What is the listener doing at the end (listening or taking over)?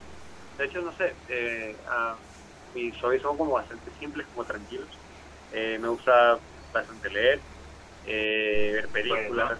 listening